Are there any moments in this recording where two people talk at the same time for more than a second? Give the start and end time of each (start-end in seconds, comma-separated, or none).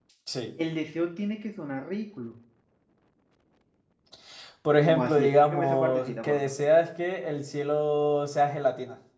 4.8-6.5